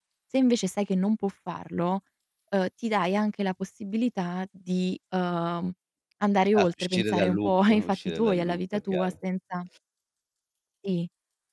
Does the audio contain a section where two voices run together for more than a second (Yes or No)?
Yes